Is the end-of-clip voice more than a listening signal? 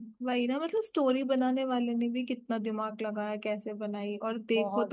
No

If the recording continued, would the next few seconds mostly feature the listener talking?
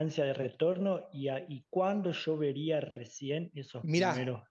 Yes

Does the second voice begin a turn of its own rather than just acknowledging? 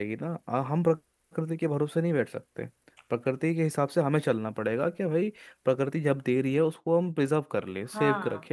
No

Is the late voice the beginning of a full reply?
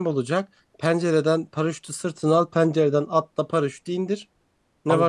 Yes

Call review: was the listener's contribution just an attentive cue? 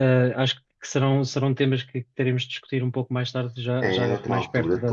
No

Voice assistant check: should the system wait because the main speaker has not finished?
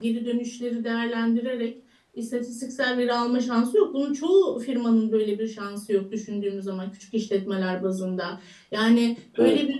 Yes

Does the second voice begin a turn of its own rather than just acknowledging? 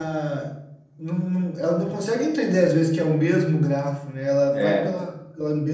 No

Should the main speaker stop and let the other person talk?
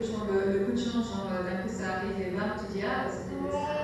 Yes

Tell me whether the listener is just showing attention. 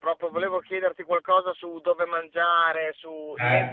Yes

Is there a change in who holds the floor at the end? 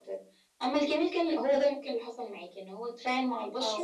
No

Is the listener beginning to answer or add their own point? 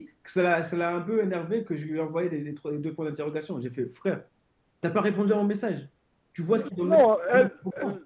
Yes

